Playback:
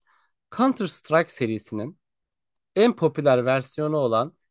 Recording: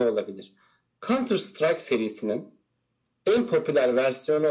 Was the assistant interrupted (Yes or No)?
No